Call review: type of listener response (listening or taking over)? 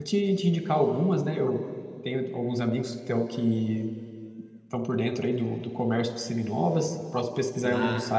listening